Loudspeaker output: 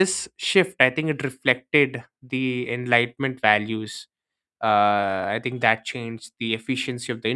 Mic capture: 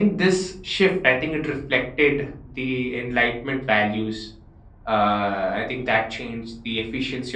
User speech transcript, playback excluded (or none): none